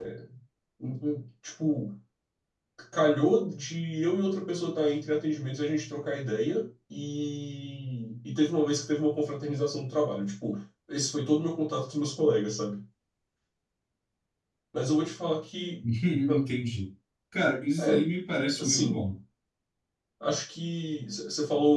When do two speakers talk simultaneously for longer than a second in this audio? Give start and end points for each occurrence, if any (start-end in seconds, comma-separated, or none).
none